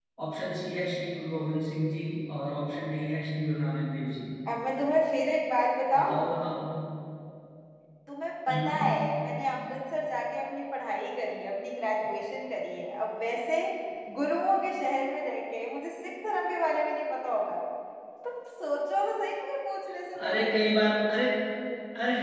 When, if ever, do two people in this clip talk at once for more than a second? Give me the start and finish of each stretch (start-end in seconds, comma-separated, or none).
none